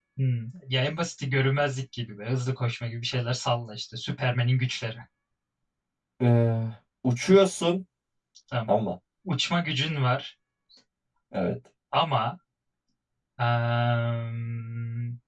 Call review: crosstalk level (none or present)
none